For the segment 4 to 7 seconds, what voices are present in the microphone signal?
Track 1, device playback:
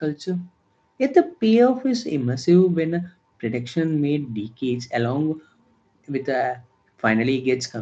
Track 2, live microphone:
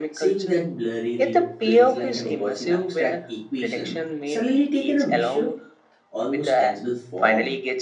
both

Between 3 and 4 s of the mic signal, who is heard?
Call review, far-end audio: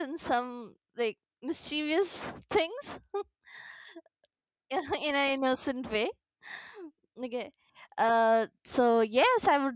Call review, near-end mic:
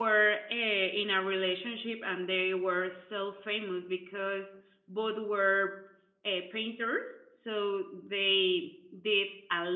user only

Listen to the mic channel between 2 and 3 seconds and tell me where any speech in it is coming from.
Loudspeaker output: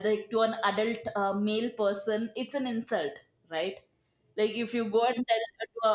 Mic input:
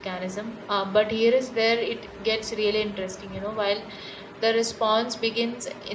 user only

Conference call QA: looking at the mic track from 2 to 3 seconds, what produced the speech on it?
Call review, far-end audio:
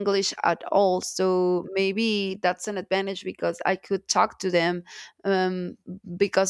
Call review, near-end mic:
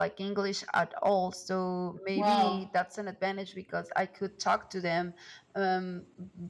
both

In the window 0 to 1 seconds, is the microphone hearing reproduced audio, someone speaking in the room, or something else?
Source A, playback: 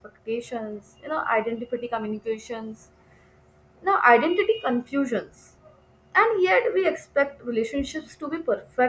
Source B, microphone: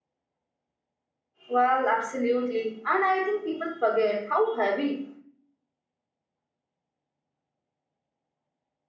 neither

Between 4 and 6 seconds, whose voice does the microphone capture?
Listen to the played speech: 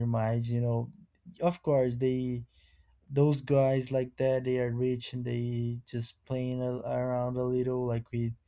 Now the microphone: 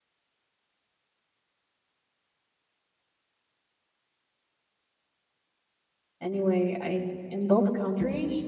neither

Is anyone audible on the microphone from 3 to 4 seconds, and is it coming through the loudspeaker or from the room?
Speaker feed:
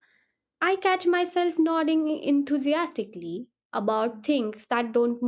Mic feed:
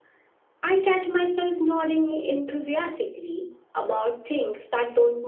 echo only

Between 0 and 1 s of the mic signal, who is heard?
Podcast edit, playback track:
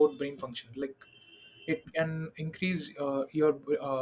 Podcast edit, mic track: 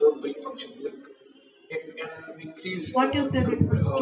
echo only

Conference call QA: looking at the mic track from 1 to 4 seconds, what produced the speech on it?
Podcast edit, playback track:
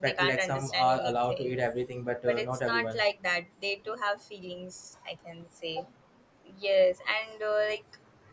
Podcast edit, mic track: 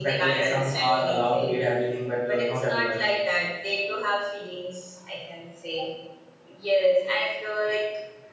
echo only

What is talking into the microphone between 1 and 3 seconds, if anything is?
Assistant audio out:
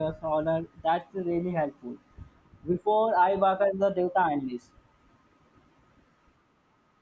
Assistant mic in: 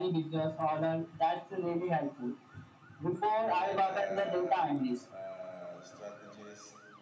echo only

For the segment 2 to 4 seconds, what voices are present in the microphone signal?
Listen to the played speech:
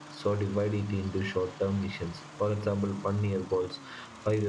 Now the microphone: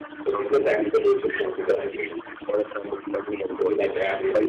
both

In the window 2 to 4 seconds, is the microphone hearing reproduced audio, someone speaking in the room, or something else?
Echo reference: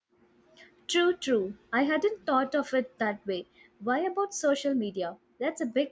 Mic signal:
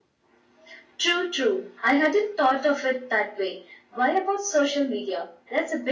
echo only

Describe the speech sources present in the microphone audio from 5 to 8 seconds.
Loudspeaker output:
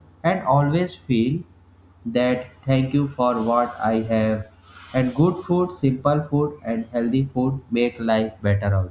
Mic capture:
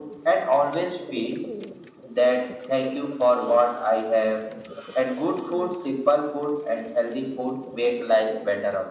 echo only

